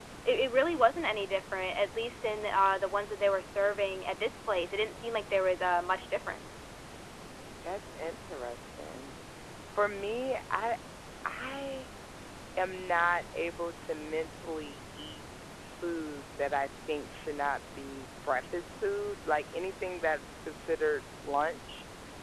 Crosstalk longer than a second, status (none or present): none